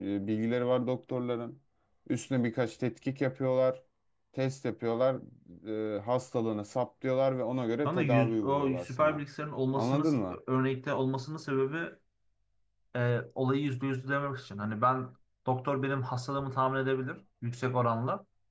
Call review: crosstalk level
present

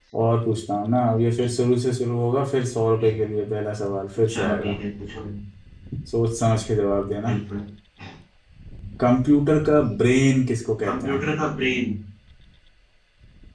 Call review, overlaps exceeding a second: none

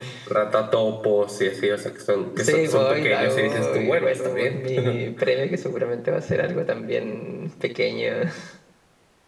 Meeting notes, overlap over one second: present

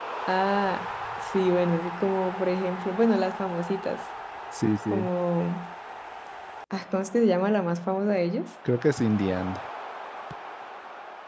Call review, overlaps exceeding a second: none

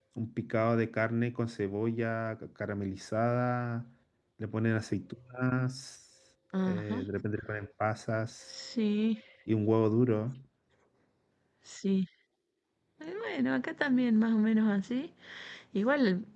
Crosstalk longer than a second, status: none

